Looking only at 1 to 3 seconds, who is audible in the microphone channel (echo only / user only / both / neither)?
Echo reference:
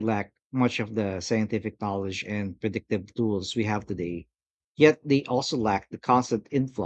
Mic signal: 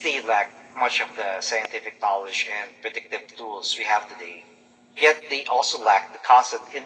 echo only